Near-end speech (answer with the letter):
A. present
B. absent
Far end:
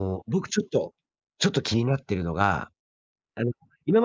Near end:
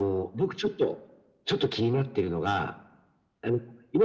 B